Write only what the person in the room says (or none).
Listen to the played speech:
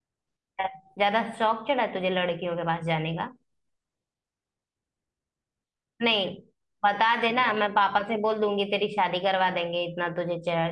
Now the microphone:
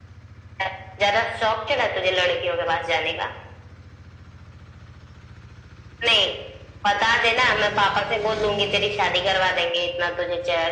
none